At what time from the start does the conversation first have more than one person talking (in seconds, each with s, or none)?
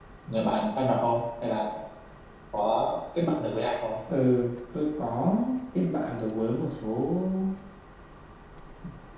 none